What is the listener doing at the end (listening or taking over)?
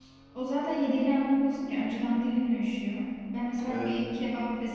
listening